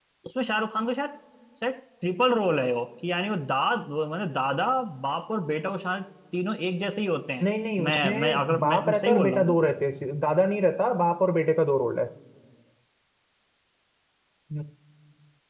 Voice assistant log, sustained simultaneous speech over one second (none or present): present